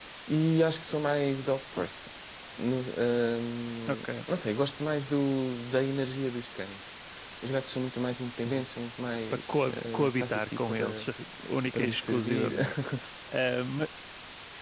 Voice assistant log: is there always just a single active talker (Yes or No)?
No